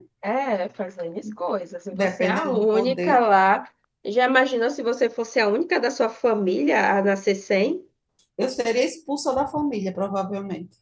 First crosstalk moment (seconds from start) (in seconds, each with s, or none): 1.9 s